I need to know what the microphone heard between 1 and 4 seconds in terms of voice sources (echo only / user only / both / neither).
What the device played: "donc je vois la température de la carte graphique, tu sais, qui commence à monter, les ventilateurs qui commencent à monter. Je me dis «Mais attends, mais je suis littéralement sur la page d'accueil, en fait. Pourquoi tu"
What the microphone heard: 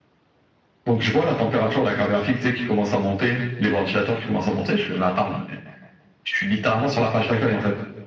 echo only